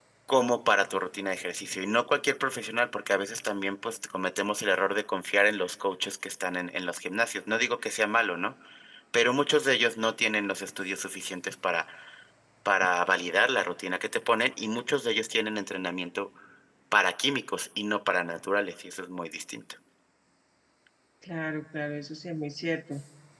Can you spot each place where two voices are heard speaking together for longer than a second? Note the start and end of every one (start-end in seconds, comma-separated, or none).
none